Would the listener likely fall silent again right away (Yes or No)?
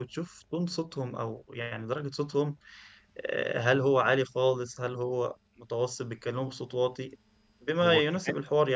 Yes